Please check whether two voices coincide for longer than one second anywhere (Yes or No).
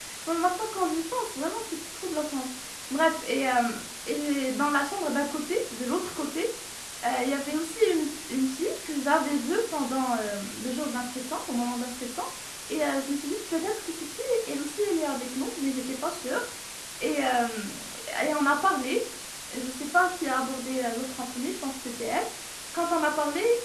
No